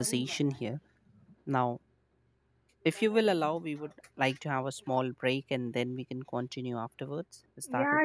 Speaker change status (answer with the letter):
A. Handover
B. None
A